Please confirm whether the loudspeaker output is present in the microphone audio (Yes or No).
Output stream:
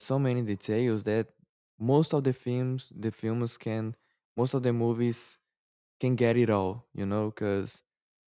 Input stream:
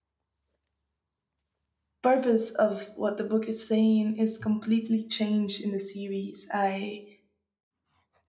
No